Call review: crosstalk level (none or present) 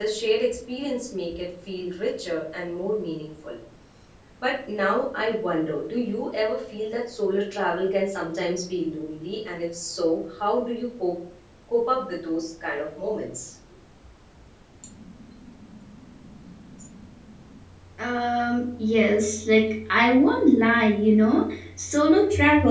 none